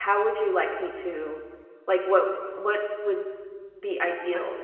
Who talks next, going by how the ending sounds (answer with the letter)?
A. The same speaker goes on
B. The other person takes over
A